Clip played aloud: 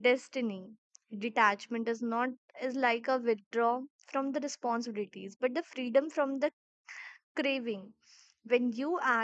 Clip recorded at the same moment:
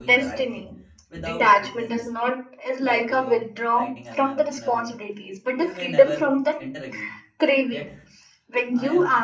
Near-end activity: present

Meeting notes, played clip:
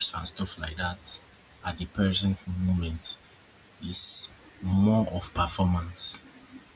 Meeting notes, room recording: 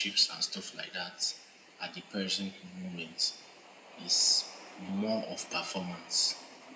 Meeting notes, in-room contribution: none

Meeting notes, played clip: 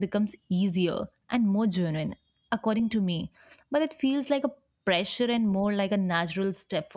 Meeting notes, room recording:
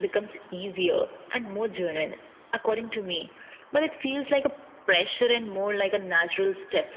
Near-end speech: none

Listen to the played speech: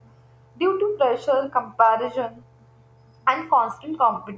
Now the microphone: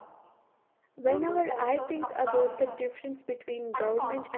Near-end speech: present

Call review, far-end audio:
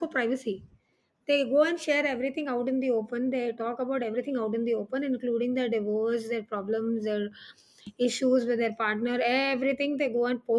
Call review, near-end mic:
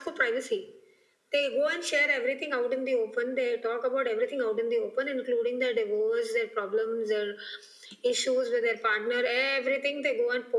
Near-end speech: none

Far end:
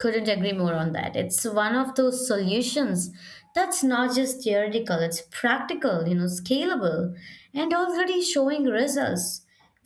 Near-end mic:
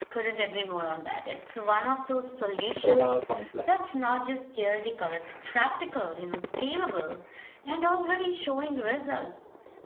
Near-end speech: present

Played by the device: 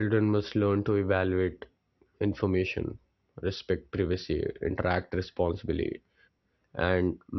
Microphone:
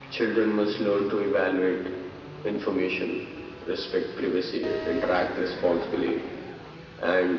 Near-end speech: none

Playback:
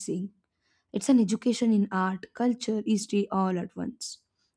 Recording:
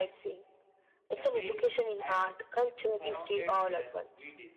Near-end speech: present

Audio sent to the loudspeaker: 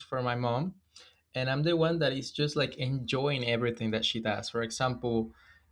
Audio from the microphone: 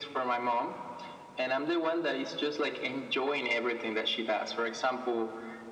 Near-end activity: none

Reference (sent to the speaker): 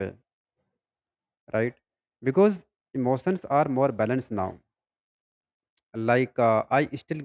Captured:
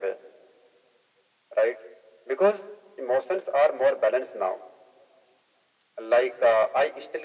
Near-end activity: none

